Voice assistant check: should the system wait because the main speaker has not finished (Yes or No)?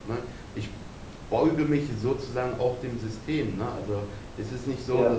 Yes